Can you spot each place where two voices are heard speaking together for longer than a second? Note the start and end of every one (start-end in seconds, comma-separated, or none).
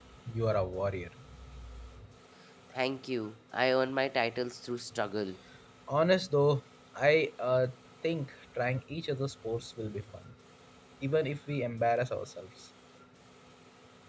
none